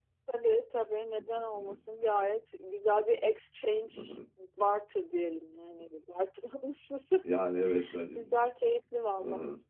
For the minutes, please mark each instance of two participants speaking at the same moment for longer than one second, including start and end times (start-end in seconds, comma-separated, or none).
none